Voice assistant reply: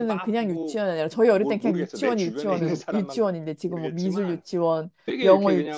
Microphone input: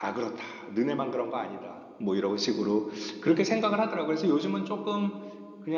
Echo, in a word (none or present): none